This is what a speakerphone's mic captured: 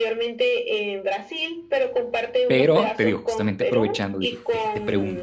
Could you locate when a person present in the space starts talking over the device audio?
2 s

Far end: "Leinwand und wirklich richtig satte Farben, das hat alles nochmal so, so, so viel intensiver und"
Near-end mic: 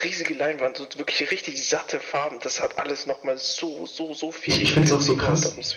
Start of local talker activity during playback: 4 s

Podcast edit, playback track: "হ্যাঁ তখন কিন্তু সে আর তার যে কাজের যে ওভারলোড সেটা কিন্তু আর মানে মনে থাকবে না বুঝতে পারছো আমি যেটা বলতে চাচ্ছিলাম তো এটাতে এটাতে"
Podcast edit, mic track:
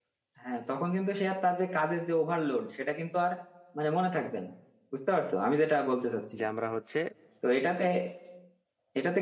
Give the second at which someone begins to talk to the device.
6 s

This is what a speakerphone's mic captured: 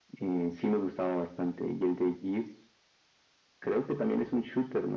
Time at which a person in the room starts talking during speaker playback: none

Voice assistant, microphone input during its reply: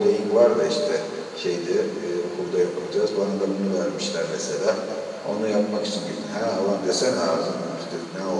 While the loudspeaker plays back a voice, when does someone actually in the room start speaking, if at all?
none

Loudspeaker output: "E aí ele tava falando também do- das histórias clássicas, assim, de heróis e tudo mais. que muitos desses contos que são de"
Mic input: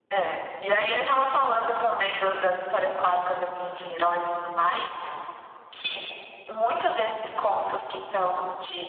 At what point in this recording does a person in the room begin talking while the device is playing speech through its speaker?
none

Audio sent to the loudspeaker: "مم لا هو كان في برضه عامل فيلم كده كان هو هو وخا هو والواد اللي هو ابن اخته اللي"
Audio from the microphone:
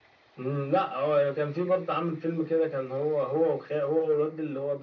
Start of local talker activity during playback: none

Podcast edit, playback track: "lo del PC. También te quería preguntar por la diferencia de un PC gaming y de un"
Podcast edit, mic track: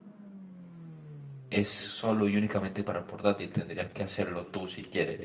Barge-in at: 2 s

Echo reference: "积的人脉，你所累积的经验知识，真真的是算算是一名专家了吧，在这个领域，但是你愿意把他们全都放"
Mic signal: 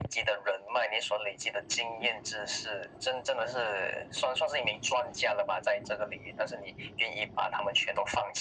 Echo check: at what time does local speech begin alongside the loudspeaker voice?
none

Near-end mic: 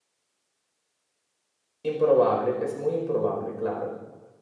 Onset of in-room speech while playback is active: 2 s

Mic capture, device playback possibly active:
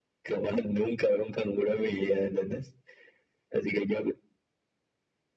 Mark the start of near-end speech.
none

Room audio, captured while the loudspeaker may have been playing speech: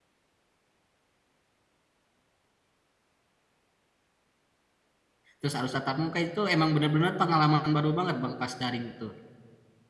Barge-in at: 5 s

